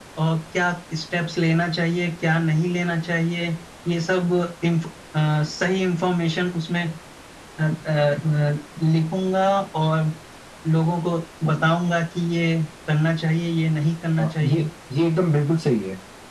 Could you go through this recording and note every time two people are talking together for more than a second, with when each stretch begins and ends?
none

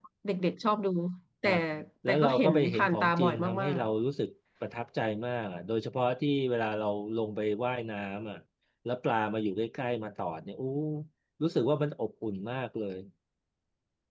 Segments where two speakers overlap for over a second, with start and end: 2.1-3.8

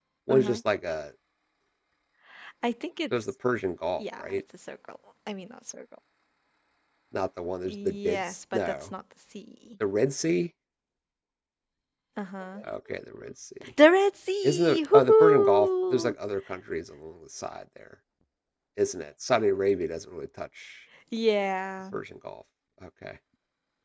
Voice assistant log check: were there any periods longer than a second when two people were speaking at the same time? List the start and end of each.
7.7-8.9, 14.4-16.1

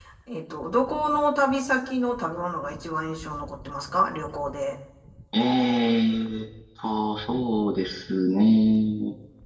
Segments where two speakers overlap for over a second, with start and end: none

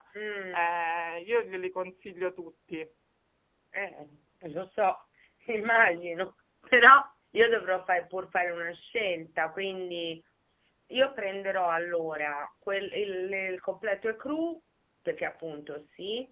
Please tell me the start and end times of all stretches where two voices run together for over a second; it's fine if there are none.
none

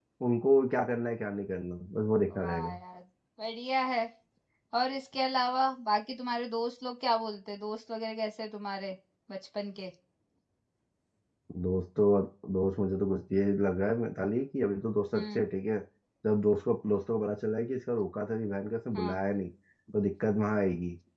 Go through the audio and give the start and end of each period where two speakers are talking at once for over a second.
none

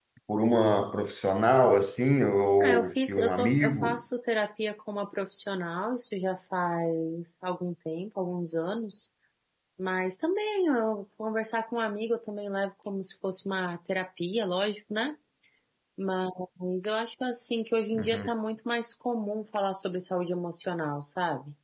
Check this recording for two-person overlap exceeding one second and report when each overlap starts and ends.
2.6-4.0

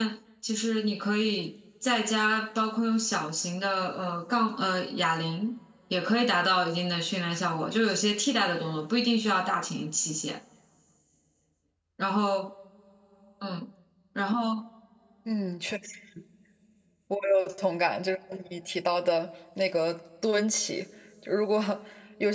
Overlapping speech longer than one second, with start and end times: none

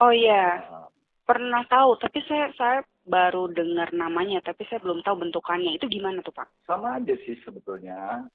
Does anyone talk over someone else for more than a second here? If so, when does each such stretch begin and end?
none

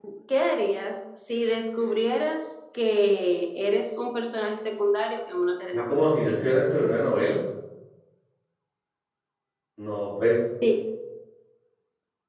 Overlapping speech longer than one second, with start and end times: none

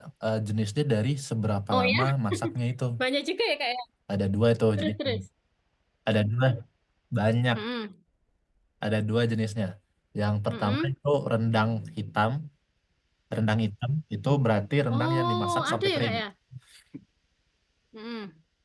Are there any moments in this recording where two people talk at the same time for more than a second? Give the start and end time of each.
14.9-16.1

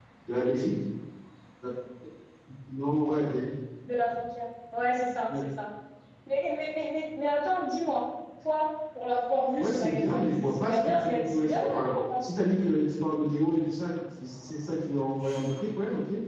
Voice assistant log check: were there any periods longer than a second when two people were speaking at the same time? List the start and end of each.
9.6-12.0

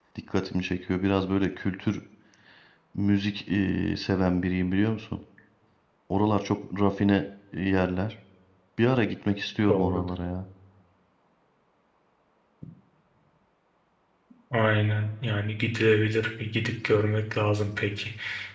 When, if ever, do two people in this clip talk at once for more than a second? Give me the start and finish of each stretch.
none

